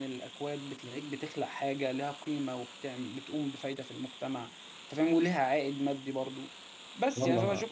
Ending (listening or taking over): listening